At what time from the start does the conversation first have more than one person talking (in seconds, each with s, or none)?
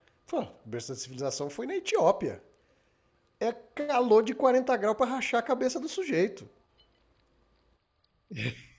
none